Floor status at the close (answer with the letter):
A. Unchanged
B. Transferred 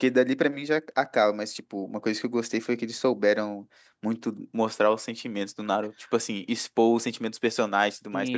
B